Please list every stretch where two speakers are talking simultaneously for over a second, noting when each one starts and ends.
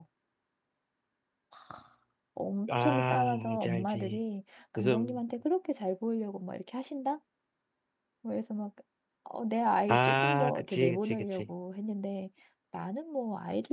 2.7-4.2, 9.9-11.5

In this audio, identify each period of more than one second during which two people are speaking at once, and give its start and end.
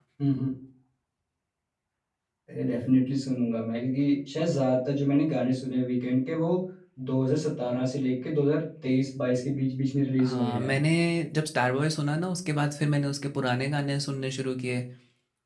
none

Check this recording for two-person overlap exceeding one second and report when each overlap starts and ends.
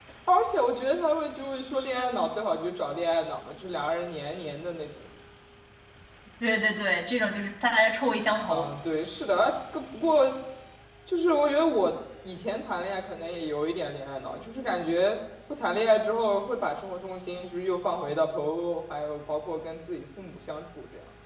none

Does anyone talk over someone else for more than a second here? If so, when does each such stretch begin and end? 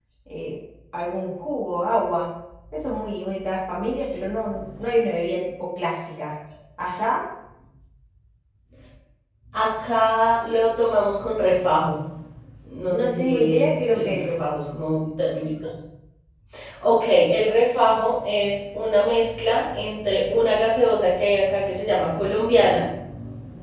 12.9-14.4

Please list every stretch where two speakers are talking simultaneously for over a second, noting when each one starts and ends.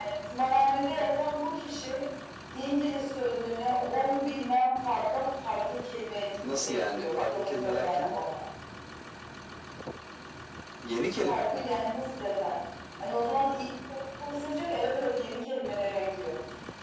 6.6-8.2

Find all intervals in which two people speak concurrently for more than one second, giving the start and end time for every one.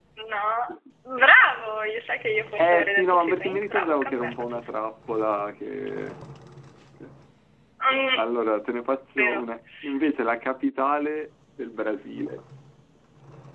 2.6-4.7

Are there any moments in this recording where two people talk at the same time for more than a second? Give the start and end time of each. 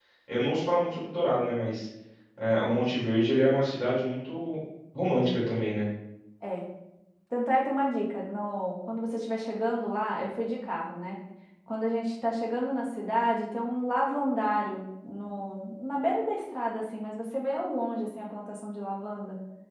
none

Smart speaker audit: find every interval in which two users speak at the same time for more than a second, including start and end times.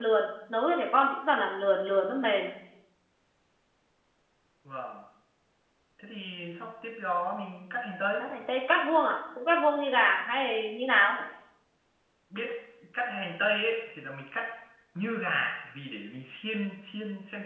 none

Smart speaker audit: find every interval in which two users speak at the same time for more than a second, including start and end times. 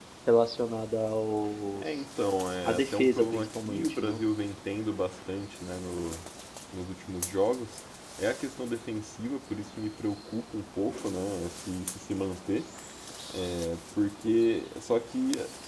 2.6-4.2

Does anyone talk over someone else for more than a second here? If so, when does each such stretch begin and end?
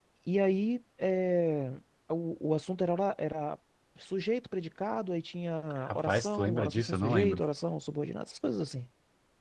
5.9-7.4

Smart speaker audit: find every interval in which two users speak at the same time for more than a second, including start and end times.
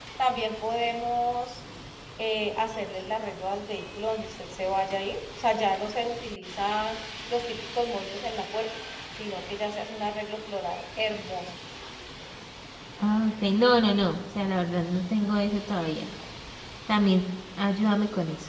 none

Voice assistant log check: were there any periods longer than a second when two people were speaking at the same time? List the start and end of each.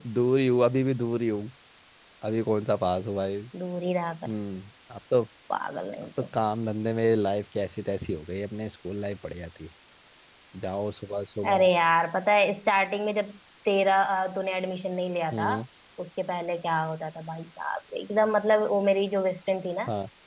none

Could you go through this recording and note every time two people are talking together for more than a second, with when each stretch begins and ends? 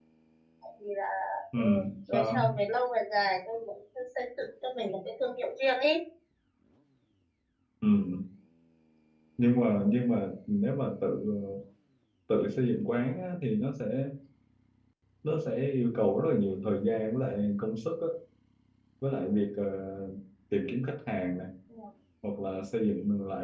none

